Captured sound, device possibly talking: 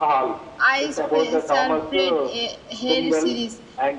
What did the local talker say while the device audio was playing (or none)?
I spe- separate a hair series